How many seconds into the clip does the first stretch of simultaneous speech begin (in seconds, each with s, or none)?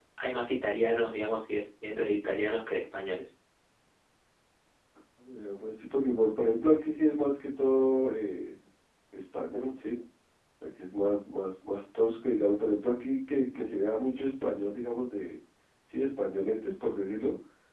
none